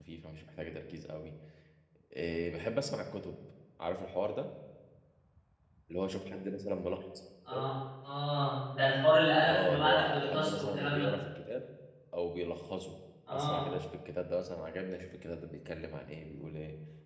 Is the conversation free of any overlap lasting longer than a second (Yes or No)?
No